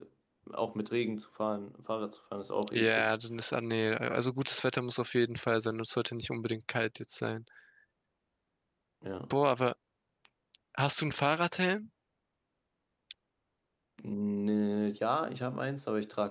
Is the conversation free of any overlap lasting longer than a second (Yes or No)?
Yes